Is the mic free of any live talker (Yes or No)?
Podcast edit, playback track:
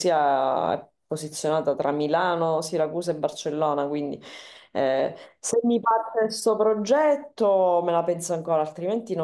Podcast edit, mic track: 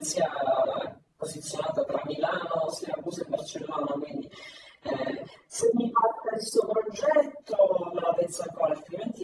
Yes